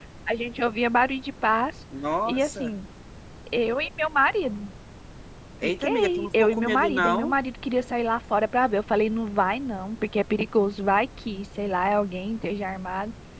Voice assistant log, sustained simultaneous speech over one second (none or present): present